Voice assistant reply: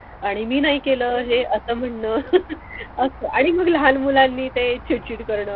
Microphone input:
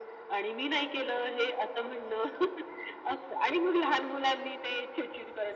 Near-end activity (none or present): none